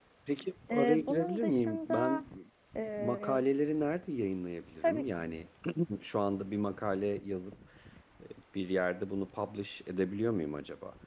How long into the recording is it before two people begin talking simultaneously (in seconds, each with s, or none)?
0.7 s